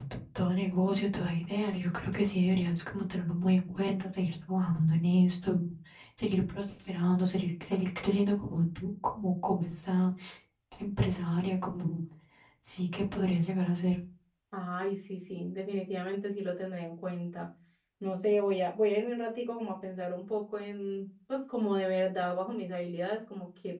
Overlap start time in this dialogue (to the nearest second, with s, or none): none